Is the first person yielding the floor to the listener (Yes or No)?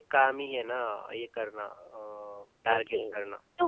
Yes